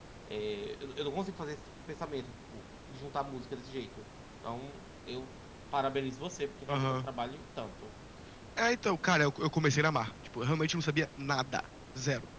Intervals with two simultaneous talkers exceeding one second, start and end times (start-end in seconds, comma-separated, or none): none